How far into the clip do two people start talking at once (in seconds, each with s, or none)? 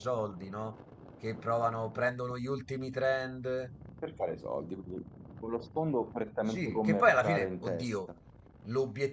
6.5 s